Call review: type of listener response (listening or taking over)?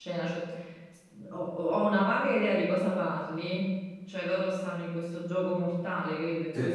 taking over